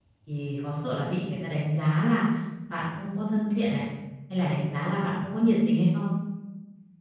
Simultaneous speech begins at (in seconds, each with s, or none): none